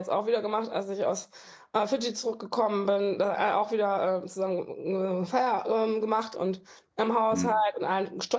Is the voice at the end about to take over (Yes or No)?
No